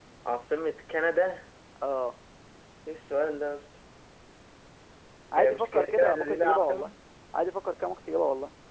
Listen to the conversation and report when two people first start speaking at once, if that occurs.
5 s

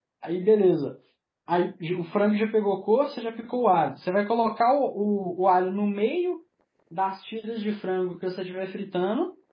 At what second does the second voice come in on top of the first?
none

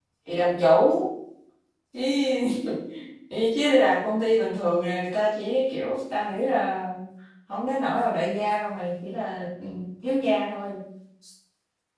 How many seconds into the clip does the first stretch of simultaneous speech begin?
none

